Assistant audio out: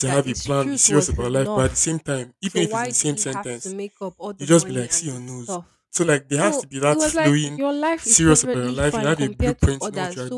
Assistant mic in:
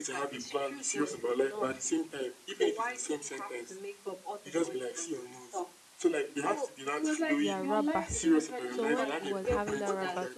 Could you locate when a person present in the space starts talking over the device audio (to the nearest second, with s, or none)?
7 s